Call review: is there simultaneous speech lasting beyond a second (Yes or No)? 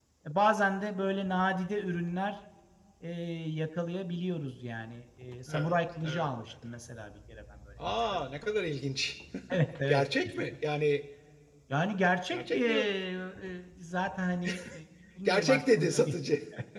Yes